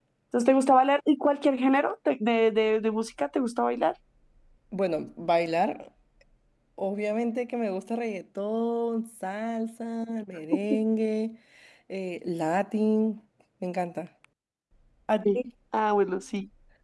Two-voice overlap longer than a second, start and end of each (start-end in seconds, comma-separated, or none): none